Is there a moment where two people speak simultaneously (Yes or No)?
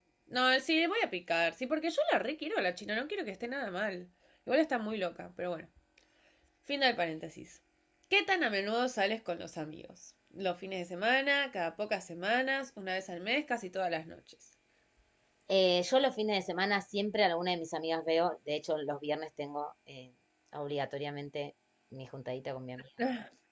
No